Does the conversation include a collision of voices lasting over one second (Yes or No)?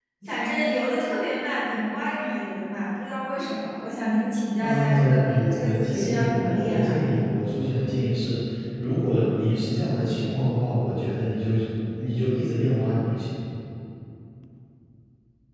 Yes